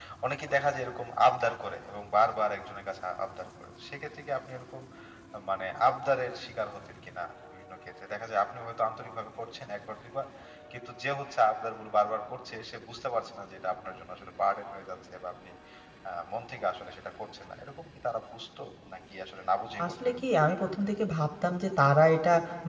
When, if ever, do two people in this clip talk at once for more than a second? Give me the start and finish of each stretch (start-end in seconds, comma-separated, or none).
none